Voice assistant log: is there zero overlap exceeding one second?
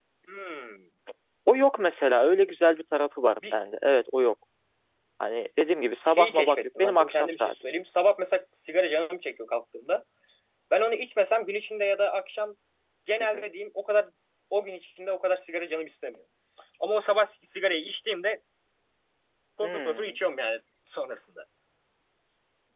No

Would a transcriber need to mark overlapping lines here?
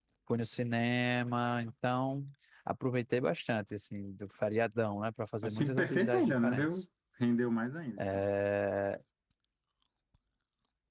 Yes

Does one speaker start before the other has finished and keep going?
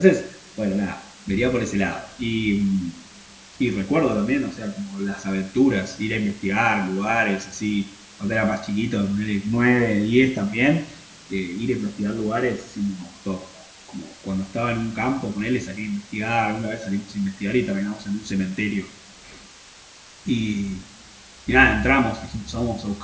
No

